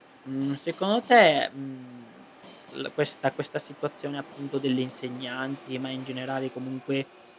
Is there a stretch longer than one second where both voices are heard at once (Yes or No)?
No